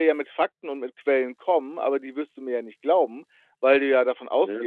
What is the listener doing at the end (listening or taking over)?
listening